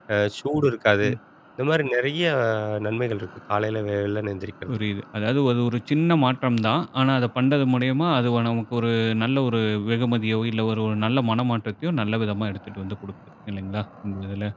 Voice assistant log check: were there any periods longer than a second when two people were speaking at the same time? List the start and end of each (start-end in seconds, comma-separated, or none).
none